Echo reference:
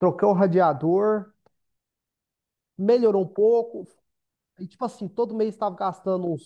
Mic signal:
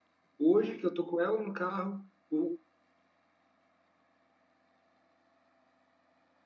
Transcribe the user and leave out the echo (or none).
Hoje que eu tô com ela no carro, o,